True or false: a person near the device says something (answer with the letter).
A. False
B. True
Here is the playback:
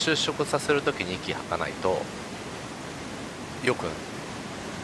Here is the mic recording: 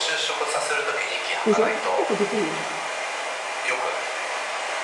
B